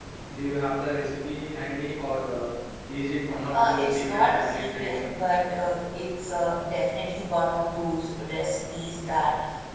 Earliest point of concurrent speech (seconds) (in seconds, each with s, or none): 3.5 s